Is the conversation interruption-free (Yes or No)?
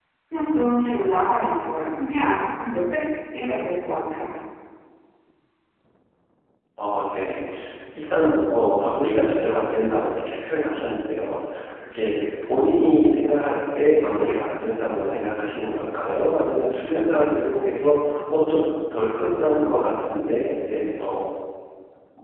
Yes